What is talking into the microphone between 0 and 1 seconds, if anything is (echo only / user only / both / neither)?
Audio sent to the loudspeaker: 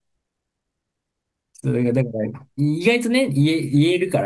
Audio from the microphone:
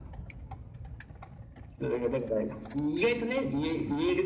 neither